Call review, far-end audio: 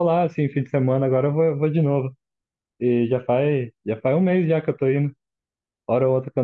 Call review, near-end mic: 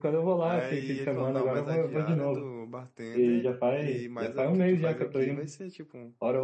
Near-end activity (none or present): present